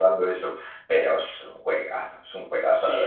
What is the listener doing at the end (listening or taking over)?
taking over